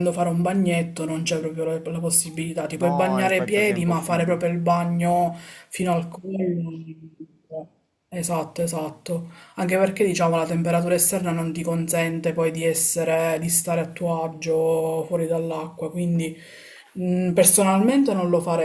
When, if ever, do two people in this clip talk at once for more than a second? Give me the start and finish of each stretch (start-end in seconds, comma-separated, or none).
2.8-4.4